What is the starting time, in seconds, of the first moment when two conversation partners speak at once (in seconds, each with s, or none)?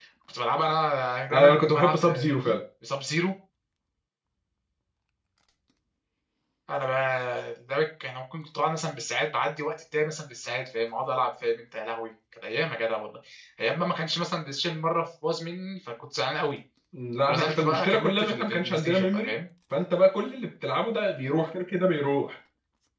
1.3 s